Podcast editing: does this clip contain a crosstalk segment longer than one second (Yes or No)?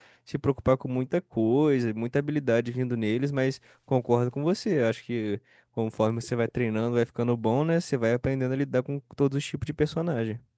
No